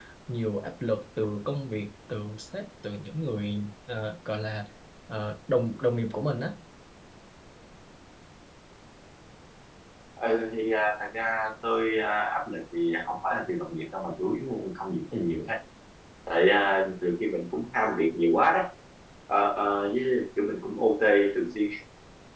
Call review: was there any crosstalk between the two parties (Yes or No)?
No